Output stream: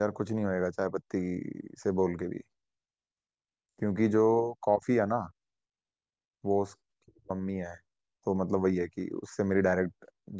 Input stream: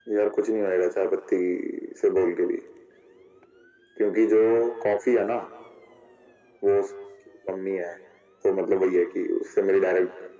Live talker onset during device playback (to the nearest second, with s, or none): none